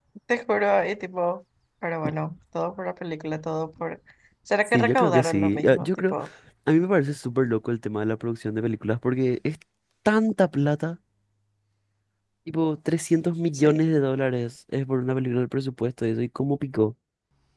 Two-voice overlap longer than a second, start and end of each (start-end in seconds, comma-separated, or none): 4.7-6.1